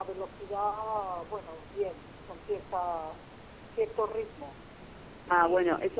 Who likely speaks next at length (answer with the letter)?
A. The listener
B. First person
A